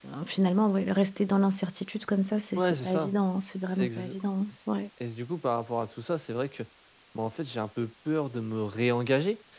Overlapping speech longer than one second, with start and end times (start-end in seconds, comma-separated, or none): none